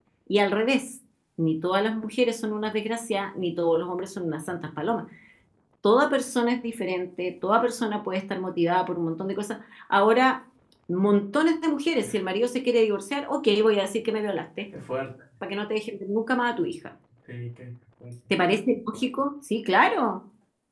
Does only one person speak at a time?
Yes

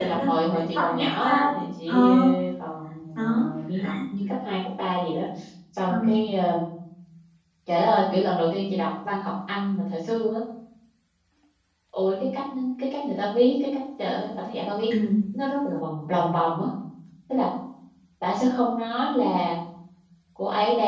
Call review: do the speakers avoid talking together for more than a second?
No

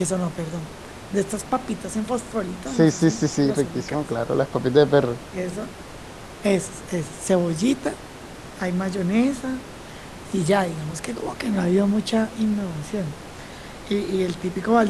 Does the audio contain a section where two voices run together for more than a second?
Yes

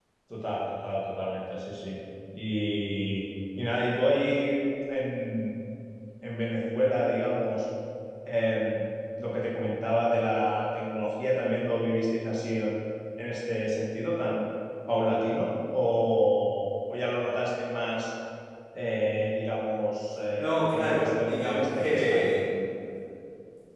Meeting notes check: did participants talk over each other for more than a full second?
Yes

